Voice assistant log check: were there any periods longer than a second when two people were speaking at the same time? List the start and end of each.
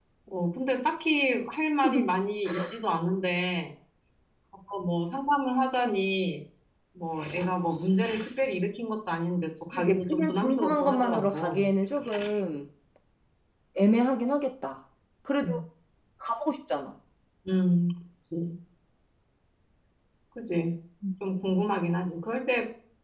9.7-11.7

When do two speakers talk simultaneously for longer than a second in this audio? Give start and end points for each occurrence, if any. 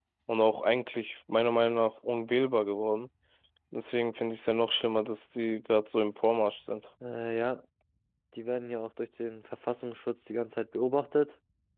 none

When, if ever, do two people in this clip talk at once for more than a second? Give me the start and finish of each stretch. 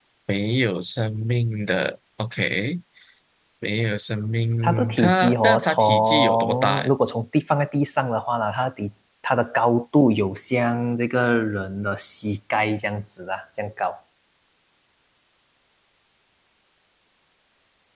4.6-6.9

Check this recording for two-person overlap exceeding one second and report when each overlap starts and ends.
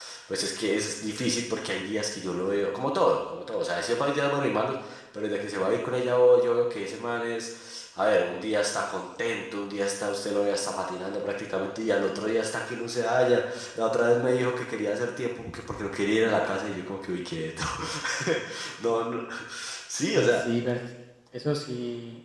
none

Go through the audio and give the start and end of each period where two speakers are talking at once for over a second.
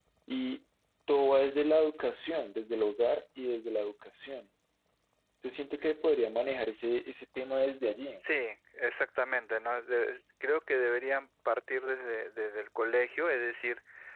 none

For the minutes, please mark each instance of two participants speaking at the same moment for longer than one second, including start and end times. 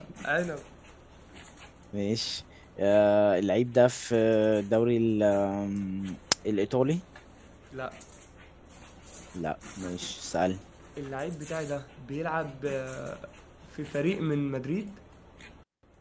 none

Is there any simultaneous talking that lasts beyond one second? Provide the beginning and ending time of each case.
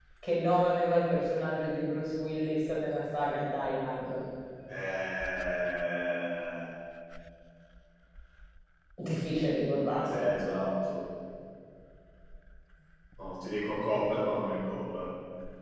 none

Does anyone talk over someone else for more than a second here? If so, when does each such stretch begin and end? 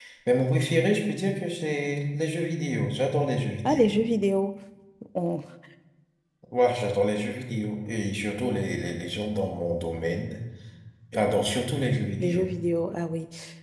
none

